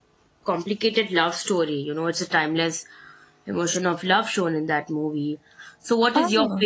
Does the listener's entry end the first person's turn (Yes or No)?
No